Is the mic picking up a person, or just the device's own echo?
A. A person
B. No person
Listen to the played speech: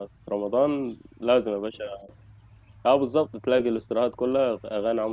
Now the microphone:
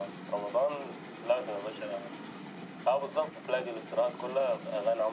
B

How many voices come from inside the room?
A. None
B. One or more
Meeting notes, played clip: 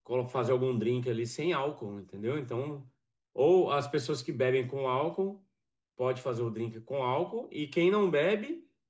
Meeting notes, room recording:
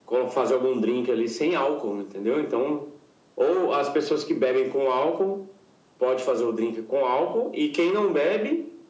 A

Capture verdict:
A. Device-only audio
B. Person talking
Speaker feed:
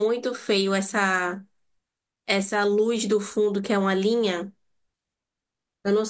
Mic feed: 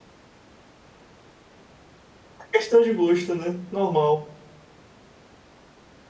B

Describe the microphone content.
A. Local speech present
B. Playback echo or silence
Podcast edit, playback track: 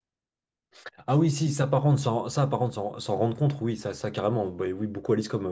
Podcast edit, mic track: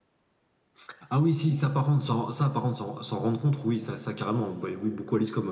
B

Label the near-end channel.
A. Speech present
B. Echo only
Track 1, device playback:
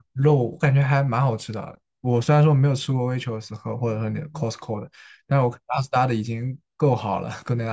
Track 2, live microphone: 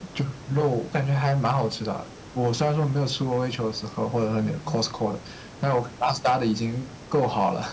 B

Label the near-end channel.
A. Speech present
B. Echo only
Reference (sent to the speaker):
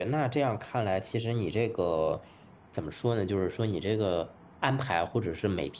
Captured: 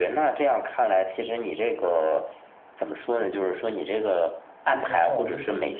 A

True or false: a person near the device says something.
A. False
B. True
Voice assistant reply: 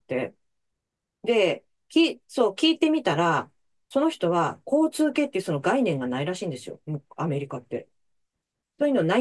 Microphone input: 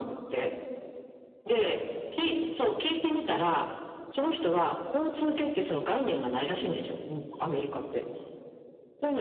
A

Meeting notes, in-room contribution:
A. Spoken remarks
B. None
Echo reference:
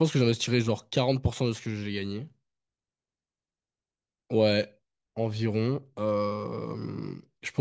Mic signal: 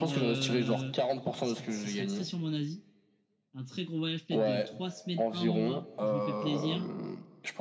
A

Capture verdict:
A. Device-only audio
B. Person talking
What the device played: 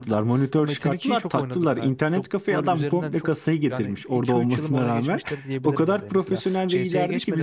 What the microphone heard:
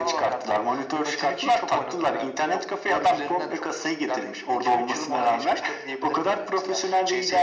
A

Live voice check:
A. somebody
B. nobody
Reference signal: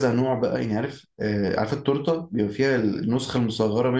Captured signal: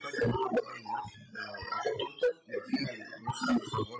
B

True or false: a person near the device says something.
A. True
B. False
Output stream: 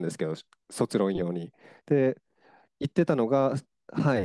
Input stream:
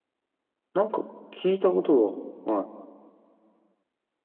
A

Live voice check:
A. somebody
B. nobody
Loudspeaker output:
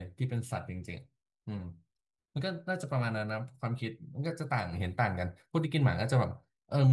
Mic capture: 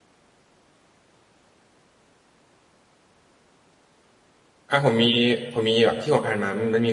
A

